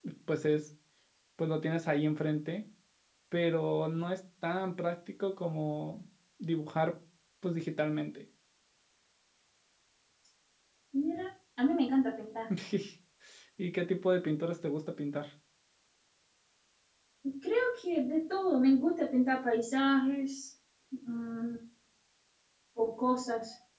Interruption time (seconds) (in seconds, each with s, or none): none